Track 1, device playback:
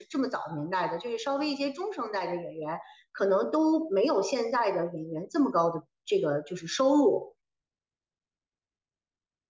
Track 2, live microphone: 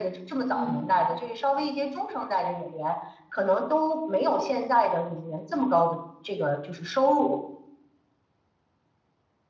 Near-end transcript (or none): 嗯